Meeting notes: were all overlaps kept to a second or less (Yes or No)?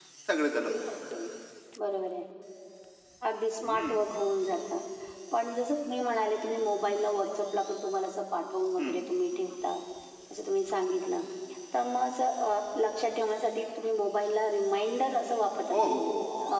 Yes